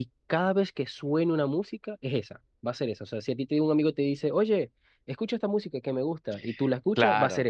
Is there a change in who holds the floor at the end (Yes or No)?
Yes